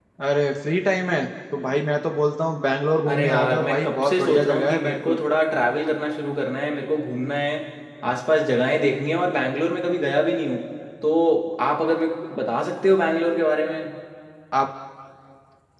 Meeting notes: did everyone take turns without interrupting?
No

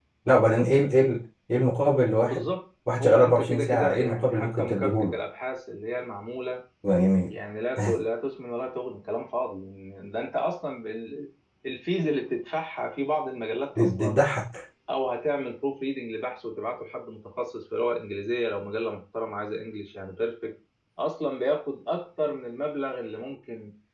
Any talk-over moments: Yes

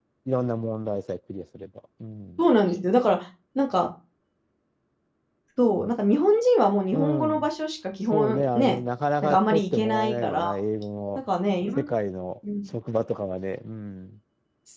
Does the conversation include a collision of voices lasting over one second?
Yes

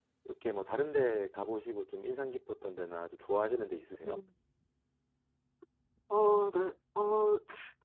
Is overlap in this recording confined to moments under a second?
Yes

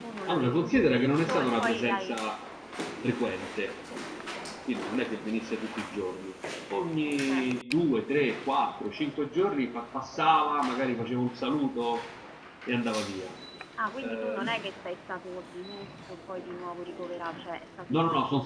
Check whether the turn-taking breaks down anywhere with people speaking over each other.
Yes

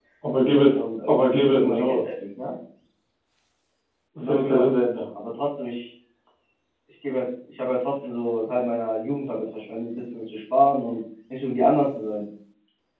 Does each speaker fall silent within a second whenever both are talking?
No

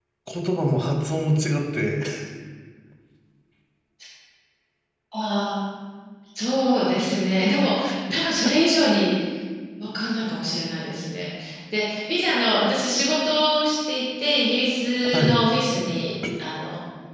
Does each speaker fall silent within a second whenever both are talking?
Yes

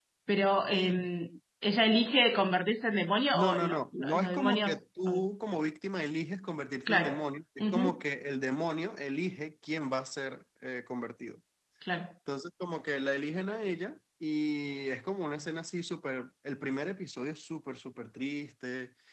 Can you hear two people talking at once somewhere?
Yes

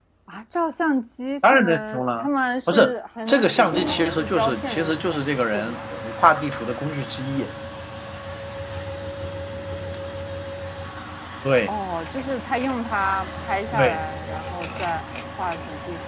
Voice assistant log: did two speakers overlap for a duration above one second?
Yes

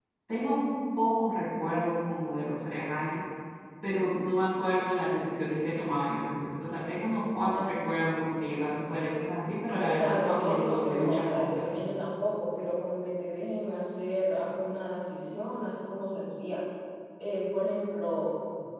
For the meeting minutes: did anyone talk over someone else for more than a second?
Yes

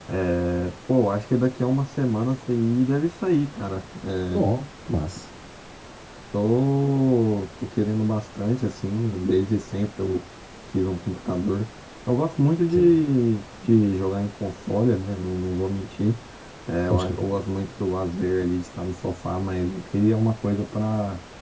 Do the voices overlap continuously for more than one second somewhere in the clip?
No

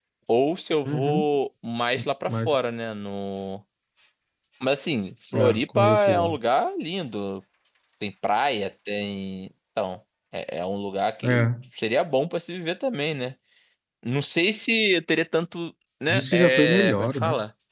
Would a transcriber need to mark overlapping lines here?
Yes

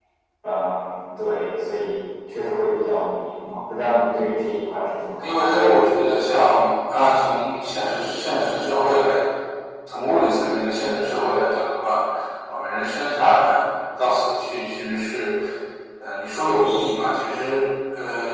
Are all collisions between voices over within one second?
Yes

